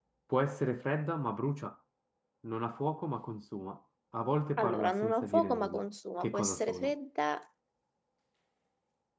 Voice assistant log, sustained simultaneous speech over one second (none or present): present